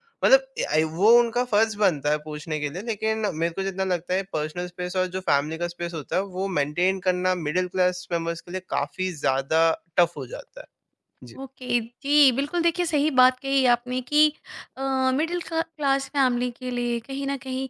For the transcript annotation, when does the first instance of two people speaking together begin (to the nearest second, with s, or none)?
none